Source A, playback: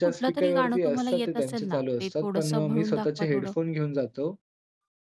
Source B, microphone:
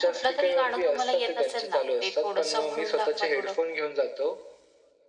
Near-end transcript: none

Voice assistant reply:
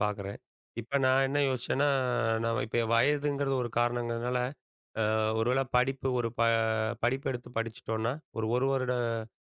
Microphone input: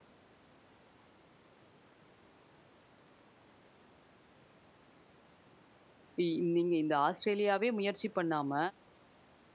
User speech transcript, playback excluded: இ நீங்க இந்த ஆஸ்ட்ரேலியாவே முயற்சி பண்ணாம,

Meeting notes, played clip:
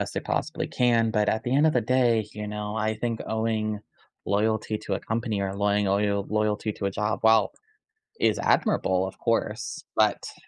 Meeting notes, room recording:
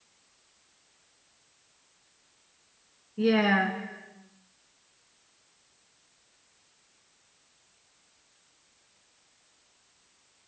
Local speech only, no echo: Yeah.

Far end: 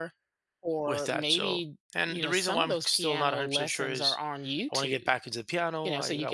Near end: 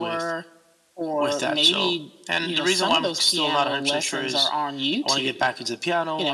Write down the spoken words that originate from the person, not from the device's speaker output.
none

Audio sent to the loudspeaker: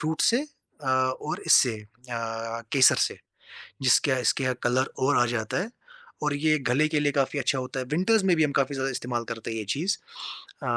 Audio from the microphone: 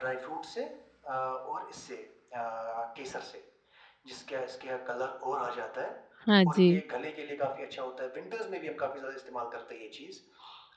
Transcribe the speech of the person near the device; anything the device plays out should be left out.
हाँ जी

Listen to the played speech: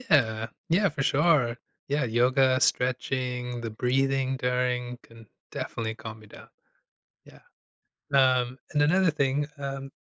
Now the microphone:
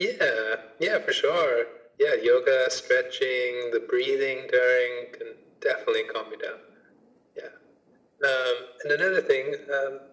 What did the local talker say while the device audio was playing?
none

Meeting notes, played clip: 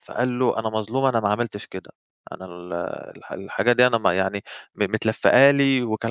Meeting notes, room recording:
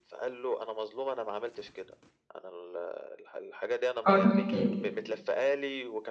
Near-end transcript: قُل احكِ لي.

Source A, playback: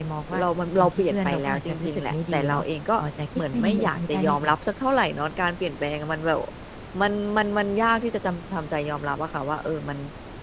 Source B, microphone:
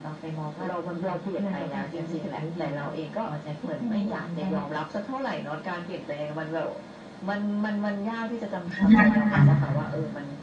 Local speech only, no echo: อาค่ะ

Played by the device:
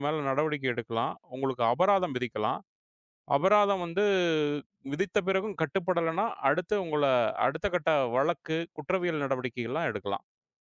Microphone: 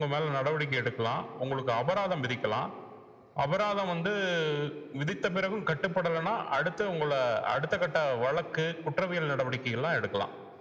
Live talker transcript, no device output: none

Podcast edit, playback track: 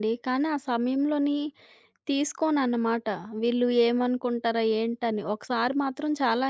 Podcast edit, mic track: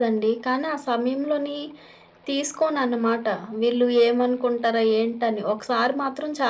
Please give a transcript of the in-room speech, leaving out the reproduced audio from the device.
none

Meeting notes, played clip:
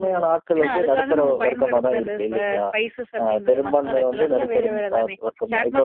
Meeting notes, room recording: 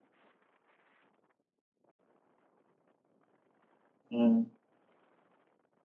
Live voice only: ம்,

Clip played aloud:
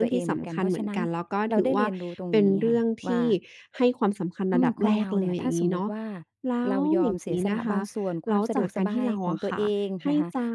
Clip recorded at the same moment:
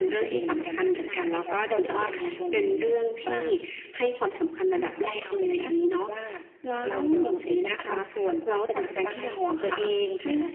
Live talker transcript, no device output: ใช่ค่ะถูกต้องค่ะ

